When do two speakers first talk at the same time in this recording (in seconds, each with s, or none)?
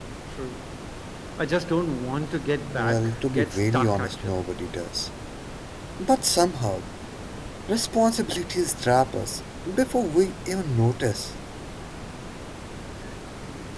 2.6 s